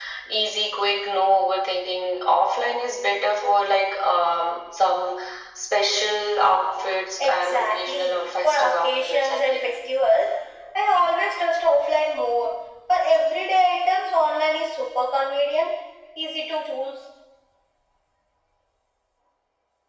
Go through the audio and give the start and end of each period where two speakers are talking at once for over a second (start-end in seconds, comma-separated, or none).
7.2-9.7